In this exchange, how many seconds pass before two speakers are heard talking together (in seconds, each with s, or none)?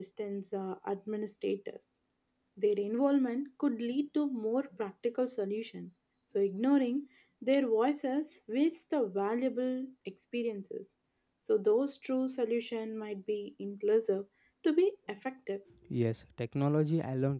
none